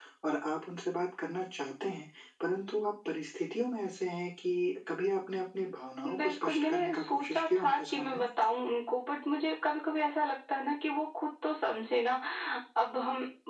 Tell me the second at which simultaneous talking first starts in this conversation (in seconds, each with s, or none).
6.0 s